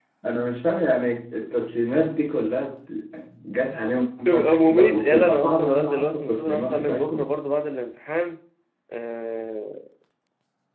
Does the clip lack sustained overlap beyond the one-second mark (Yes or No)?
No